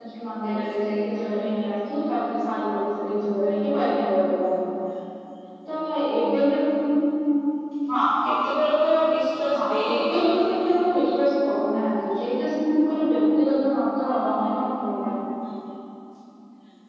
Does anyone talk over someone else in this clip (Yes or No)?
Yes